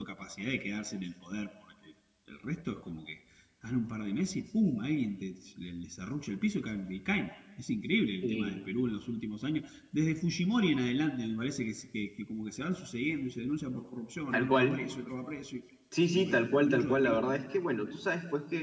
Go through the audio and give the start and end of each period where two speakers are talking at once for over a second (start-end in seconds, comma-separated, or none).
16.1-17.4